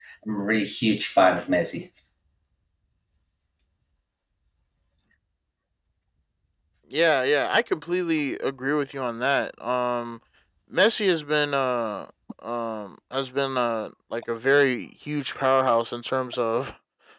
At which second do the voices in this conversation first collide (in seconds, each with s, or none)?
none